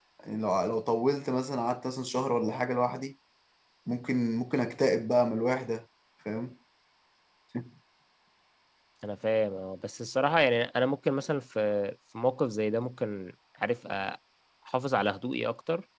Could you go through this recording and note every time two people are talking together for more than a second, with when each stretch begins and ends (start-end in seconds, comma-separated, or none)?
none